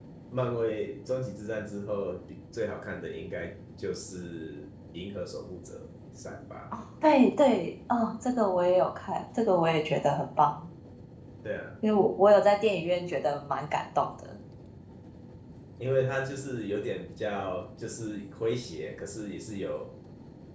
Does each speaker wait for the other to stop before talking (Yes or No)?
Yes